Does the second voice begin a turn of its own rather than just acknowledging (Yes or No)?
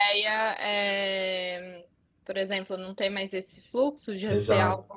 Yes